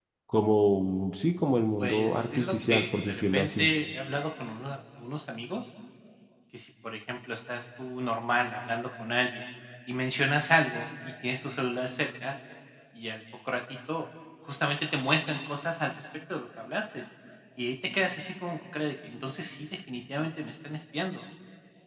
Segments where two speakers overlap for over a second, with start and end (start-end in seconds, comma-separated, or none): 1.8-3.7